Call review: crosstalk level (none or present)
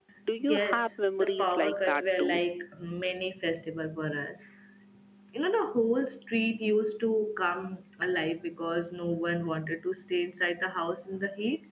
present